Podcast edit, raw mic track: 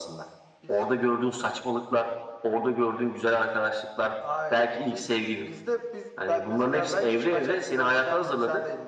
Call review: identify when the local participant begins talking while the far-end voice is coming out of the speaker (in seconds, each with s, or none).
none